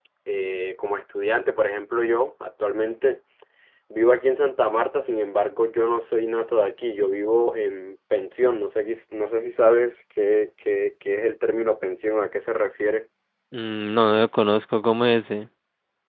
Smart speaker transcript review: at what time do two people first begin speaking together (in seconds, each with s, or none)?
none